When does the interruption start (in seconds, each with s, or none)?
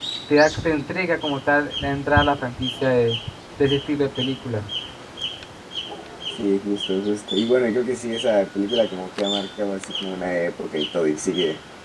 none